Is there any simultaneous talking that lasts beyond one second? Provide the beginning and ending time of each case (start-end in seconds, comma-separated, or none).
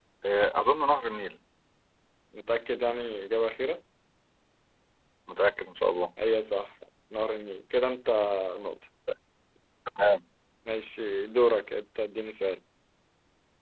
none